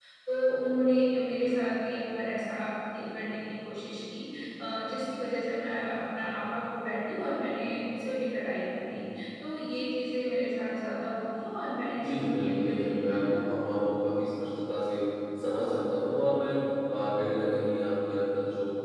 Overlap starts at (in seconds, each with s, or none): 11.9 s